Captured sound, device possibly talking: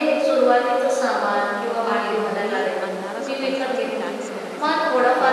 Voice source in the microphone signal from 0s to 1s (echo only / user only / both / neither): echo only